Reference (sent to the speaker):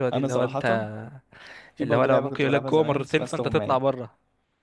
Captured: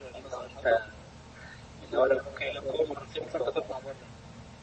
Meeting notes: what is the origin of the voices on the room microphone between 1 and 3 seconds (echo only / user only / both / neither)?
echo only